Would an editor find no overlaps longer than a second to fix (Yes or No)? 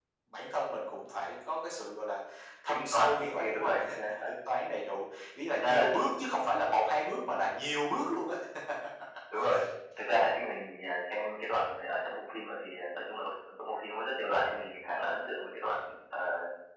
No